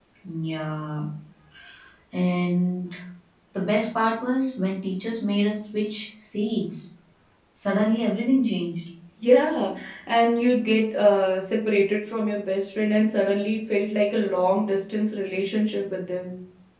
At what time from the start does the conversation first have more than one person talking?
none

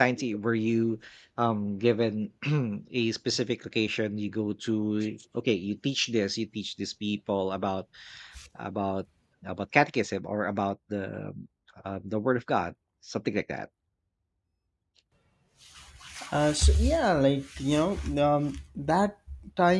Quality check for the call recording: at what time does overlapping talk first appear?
none

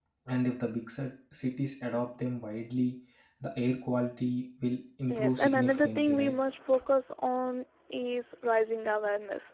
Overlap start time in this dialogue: 5.1 s

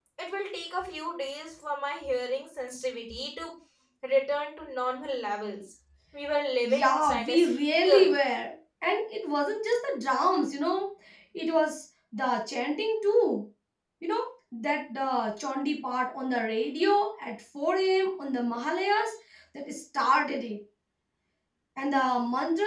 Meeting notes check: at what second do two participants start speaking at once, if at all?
6.7 s

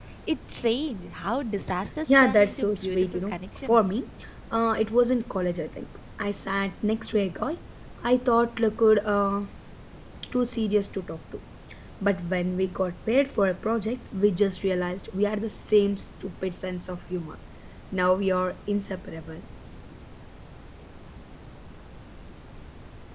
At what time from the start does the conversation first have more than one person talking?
2.1 s

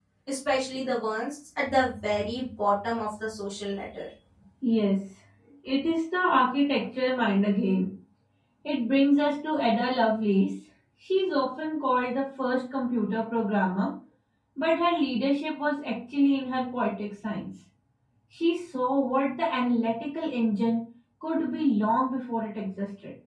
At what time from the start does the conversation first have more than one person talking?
none

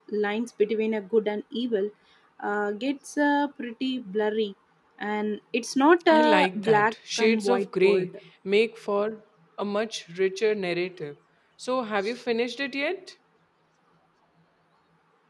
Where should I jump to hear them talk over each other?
6.1 s

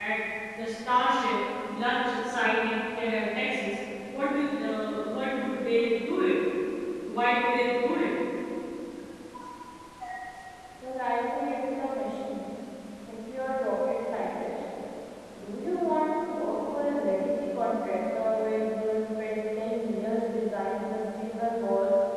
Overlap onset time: none

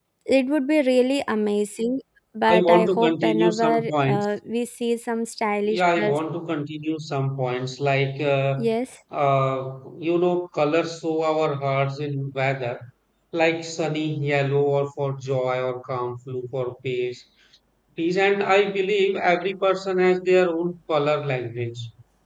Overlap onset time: 2.5 s

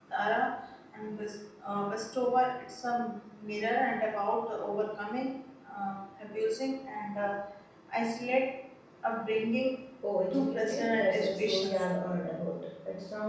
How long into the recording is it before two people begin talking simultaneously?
10.3 s

